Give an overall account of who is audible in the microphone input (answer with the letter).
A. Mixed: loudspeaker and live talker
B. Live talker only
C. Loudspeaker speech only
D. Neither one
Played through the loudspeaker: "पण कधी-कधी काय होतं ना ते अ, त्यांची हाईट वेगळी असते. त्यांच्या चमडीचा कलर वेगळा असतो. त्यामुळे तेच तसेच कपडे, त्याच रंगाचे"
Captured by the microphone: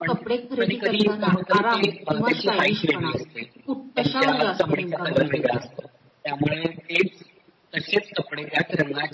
A